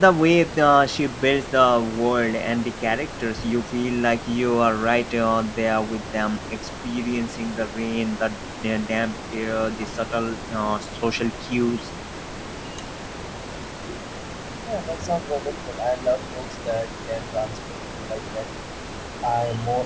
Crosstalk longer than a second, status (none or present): none